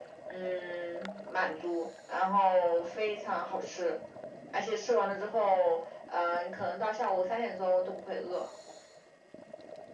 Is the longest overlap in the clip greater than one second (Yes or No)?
No